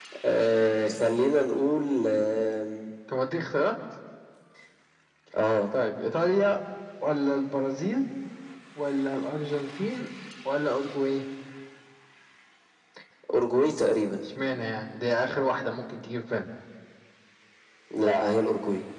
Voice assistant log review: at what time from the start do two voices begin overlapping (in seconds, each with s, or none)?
none